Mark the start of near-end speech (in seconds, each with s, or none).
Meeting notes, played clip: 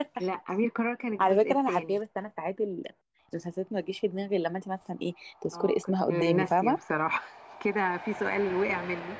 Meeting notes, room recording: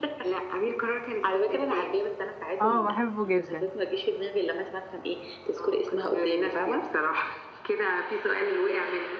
2.6 s